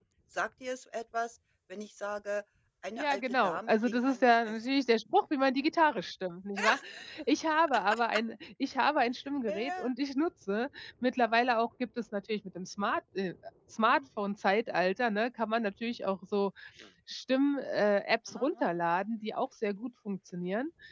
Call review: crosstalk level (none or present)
present